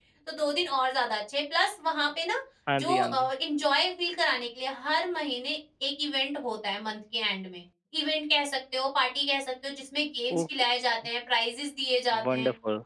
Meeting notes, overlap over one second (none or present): none